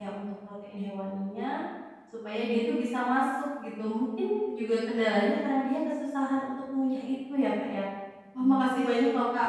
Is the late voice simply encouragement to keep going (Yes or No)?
Yes